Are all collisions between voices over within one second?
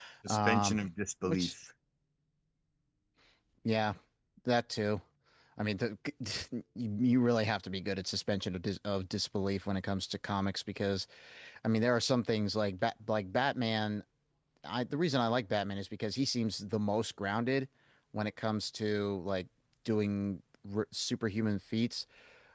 Yes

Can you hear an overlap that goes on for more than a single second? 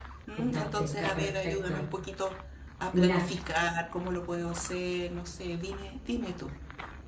Yes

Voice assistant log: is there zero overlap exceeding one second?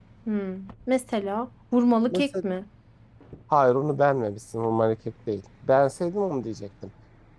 Yes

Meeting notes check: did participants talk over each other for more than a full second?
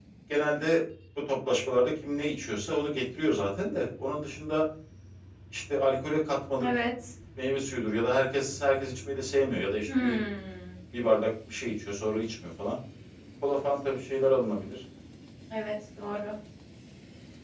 No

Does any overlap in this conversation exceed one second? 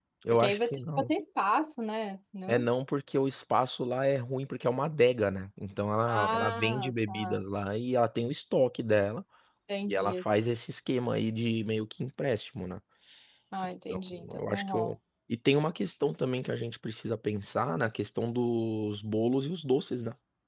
Yes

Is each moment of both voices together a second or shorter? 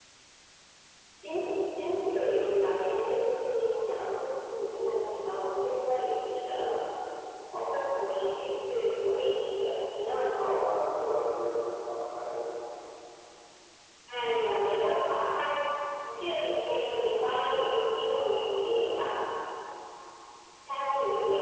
Yes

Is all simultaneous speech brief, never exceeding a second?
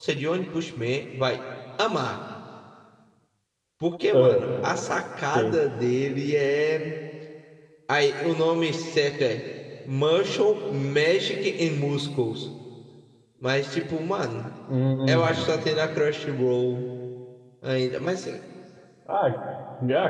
Yes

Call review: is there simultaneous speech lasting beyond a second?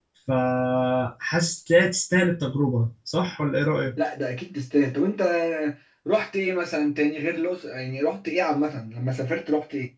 No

